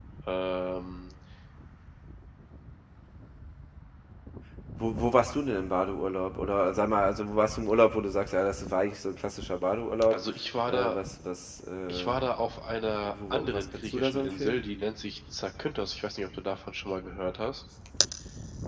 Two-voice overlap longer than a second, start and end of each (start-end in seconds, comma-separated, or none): 13.1-14.6